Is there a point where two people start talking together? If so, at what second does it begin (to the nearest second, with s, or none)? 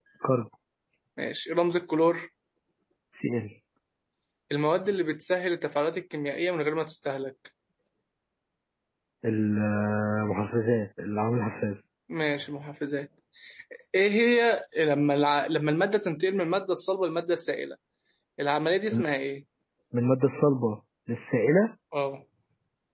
none